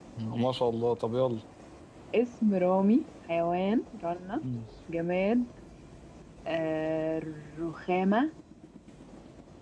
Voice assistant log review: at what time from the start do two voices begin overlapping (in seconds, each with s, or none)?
none